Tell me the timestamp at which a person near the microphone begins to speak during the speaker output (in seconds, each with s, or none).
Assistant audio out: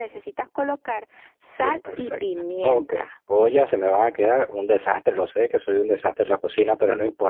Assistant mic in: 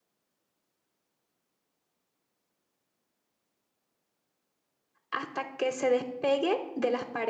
5.1 s